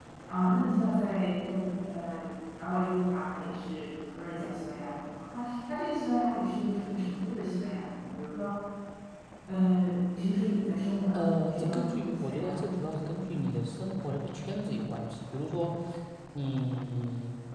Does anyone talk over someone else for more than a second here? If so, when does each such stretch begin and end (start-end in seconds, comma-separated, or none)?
11.1-12.8